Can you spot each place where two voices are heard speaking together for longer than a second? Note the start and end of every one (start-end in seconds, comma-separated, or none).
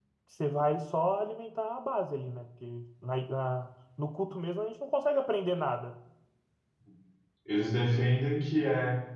none